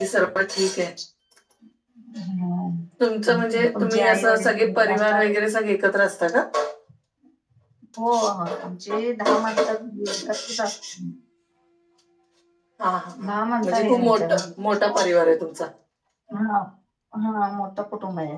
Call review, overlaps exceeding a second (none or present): present